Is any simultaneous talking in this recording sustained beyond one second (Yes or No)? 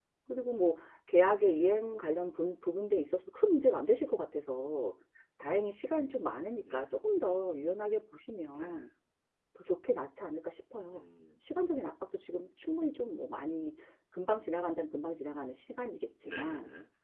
No